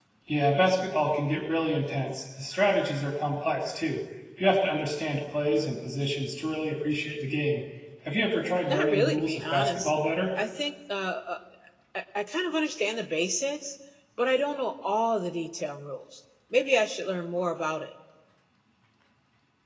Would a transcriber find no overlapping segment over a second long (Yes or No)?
No